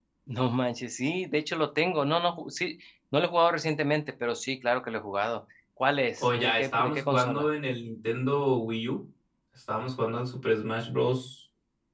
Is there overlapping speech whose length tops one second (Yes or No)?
Yes